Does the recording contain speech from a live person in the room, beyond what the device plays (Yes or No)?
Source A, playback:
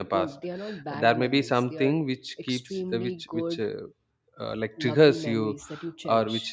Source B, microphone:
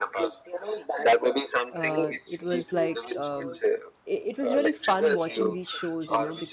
Yes